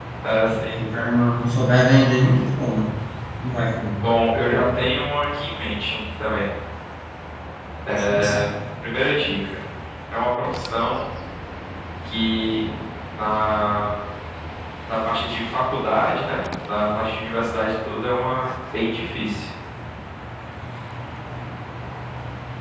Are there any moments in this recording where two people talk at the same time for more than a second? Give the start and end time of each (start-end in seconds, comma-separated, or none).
none